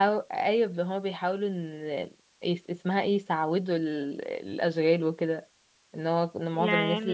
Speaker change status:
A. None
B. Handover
A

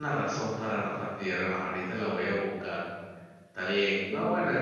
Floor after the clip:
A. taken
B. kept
B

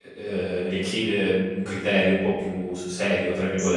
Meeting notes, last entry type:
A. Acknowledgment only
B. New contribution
B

